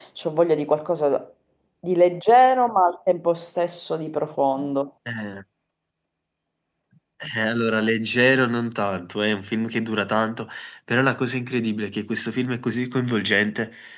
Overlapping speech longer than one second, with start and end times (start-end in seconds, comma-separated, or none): none